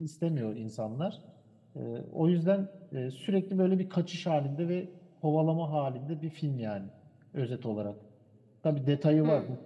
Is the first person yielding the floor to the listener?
No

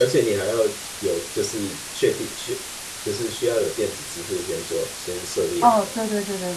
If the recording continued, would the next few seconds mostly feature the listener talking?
Yes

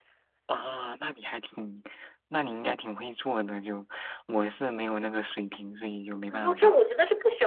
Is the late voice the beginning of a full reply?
Yes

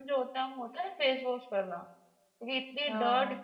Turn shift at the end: No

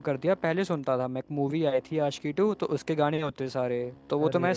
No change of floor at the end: Yes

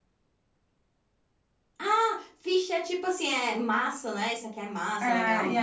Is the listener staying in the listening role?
No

